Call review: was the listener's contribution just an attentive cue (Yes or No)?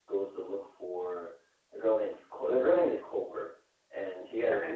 Yes